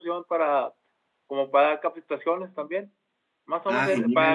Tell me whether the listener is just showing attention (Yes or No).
Yes